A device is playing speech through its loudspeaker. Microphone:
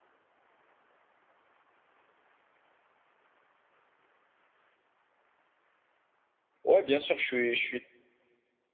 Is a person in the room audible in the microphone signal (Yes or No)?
Yes